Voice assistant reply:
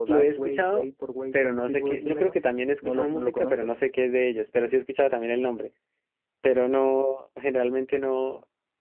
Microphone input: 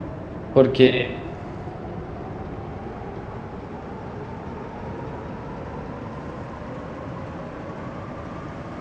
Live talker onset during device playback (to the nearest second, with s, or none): 1 s